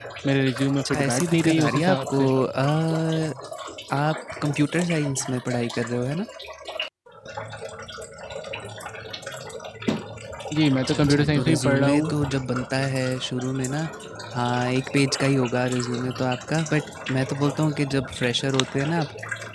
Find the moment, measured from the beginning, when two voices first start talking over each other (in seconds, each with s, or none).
0.9 s